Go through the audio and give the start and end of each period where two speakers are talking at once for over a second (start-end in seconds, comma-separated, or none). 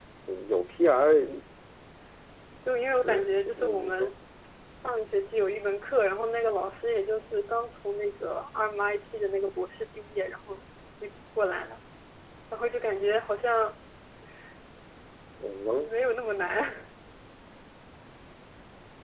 2.9-4.1